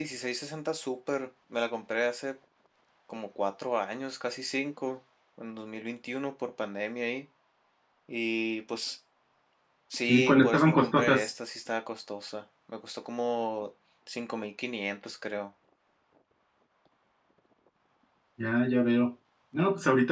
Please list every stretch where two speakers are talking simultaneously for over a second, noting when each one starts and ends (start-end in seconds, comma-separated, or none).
10.0-11.3